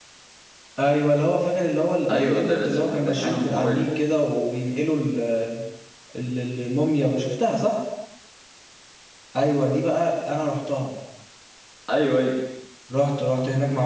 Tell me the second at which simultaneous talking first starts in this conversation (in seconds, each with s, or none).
2.1 s